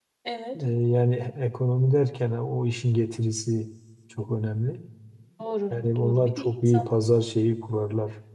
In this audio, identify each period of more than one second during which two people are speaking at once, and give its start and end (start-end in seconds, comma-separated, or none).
5.7-6.9